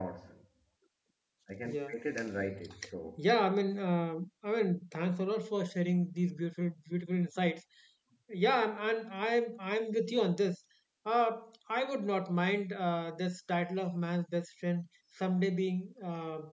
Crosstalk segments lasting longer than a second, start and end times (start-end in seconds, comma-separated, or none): none